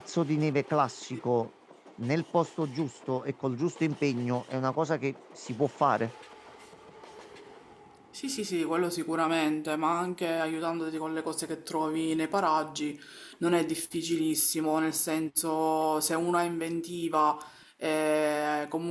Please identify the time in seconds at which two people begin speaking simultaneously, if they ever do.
none

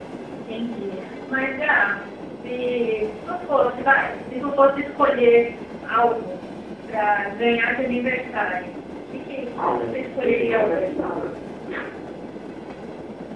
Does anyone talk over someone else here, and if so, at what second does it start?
9.5 s

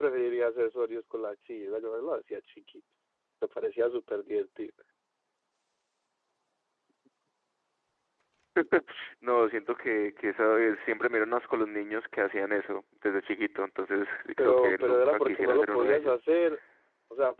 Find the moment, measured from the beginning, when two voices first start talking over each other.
14.4 s

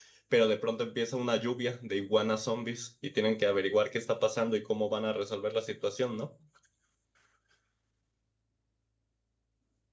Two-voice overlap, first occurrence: none

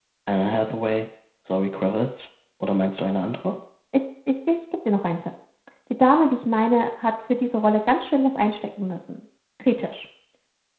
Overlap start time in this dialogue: none

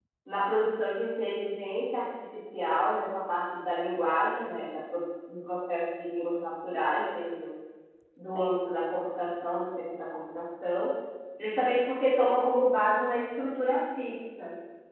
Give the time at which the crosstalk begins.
none

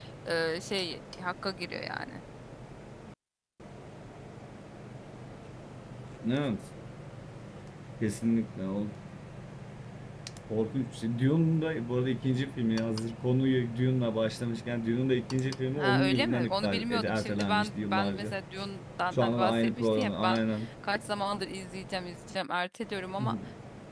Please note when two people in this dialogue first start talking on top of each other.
15.8 s

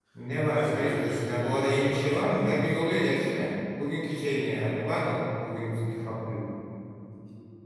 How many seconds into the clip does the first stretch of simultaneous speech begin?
0.5 s

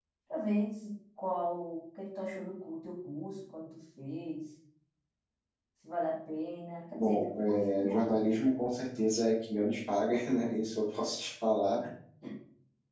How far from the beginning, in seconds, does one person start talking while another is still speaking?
7.0 s

